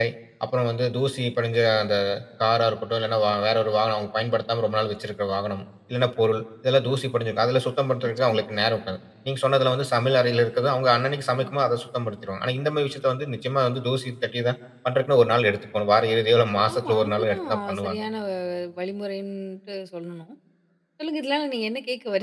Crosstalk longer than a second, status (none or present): present